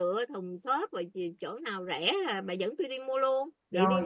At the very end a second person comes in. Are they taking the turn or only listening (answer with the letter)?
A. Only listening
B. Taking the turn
B